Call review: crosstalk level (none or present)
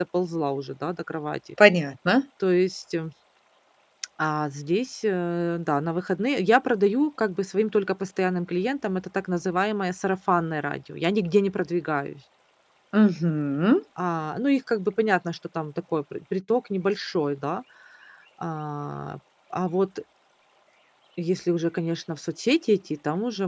none